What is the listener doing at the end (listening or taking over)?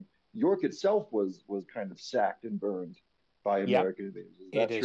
taking over